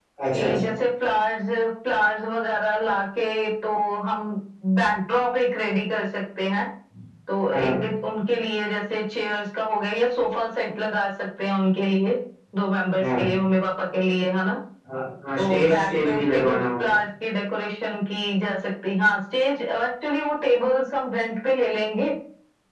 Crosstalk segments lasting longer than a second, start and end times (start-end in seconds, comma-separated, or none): 15.4-16.9